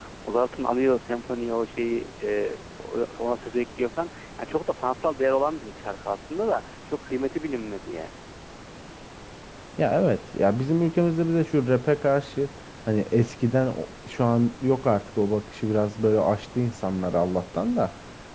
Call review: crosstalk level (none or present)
none